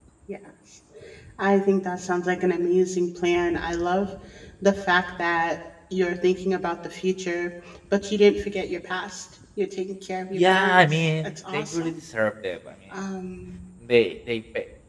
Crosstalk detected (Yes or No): Yes